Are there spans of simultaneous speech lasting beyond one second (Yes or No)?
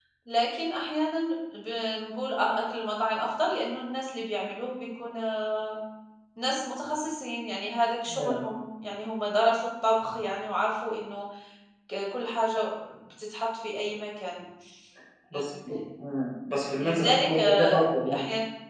Yes